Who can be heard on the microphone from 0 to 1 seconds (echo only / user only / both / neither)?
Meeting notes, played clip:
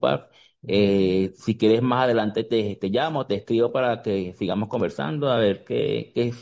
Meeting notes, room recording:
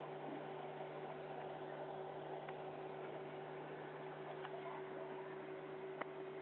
neither